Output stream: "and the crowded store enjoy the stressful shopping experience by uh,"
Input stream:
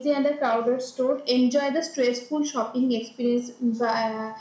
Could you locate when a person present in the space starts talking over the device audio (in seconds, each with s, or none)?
none